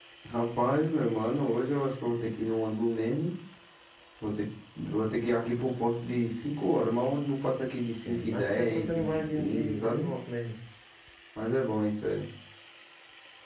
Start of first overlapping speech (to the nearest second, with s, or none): 8 s